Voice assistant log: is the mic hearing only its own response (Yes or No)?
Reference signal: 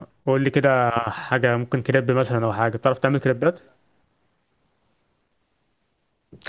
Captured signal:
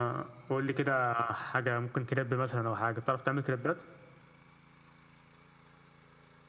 Yes